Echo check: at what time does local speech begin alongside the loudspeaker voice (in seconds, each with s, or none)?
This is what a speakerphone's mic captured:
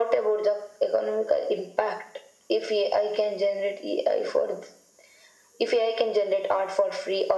none